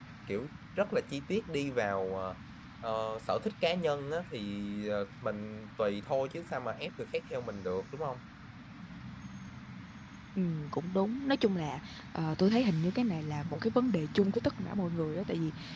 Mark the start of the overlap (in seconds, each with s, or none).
none